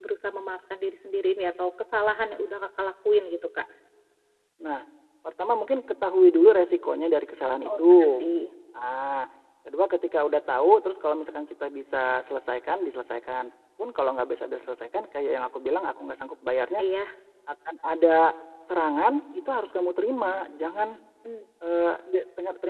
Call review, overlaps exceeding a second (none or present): none